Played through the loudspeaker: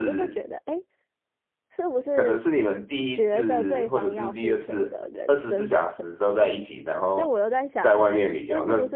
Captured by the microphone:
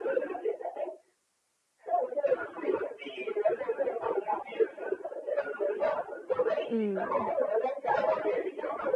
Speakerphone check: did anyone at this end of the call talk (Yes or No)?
Yes